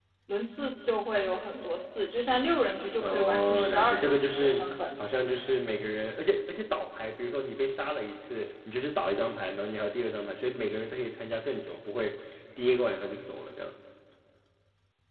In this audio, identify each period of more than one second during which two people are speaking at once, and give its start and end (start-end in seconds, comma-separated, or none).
3.0-4.7